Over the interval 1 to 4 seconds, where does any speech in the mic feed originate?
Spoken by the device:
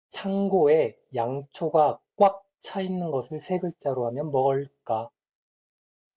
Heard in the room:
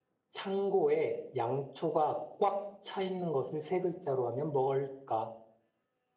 echo only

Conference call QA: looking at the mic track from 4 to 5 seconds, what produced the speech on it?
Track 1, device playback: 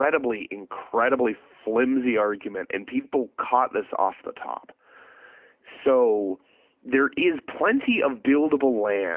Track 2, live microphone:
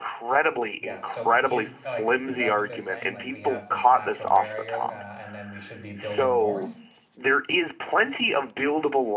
both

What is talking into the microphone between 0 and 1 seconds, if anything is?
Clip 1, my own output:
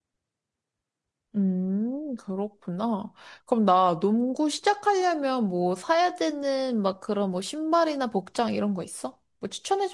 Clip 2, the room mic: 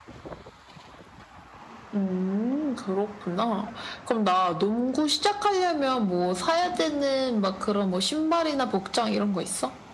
neither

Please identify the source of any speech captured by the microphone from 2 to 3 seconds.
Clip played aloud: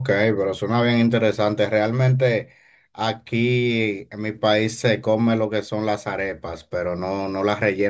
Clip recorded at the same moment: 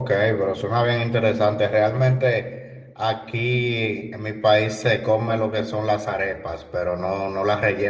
echo only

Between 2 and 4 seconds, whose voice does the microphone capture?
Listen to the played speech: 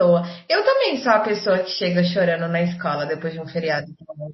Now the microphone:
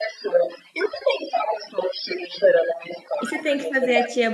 both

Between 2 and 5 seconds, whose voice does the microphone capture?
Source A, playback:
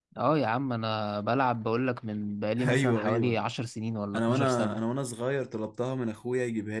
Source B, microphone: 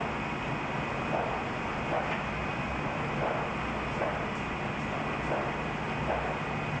neither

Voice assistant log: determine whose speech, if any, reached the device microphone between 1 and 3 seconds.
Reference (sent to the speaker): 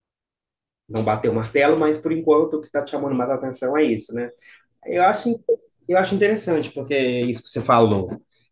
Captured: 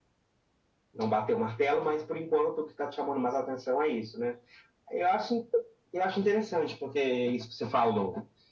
echo only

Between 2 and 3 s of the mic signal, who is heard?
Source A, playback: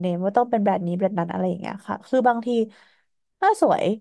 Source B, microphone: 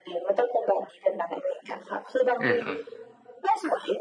both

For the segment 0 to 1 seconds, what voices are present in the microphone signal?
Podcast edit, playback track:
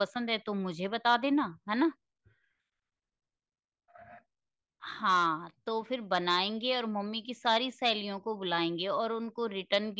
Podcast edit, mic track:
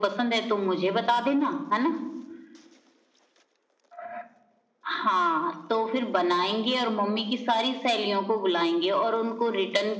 echo only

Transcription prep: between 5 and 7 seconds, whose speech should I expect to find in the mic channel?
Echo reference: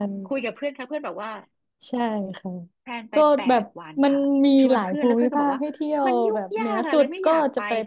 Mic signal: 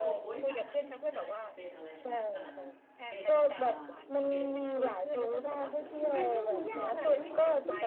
both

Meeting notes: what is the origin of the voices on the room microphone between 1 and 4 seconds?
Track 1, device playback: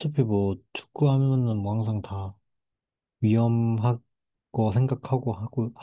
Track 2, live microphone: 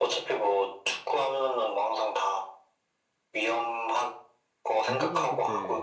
echo only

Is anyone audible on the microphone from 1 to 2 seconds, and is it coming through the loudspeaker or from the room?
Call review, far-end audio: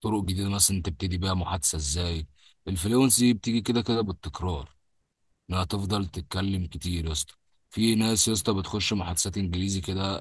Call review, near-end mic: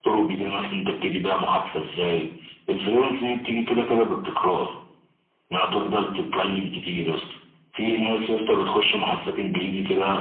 echo only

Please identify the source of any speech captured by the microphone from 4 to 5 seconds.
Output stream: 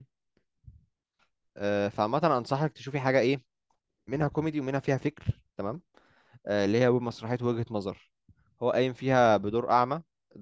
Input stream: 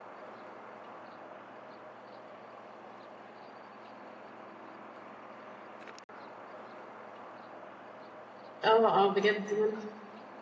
neither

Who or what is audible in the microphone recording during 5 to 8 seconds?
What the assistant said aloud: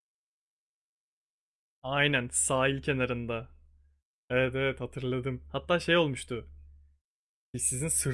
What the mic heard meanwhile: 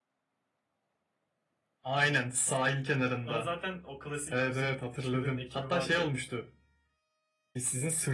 both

